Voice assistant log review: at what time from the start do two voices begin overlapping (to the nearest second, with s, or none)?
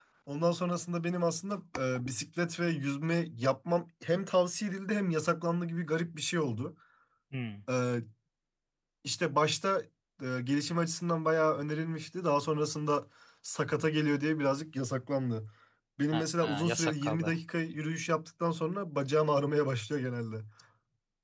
16 s